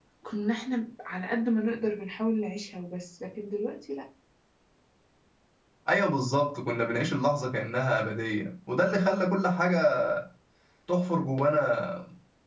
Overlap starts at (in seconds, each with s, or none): none